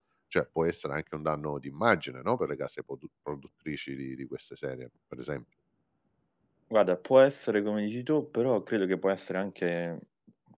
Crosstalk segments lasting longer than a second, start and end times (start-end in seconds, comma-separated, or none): none